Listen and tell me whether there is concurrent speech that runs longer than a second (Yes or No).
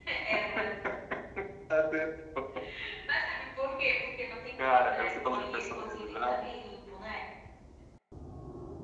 Yes